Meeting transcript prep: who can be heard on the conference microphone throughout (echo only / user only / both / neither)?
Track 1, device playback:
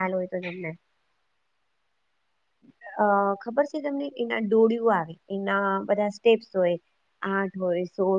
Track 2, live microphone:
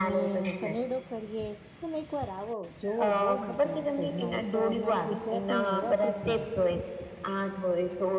both